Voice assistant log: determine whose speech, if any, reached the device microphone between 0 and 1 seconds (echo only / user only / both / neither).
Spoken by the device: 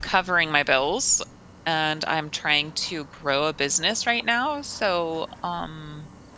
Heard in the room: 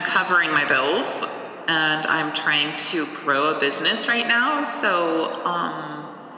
echo only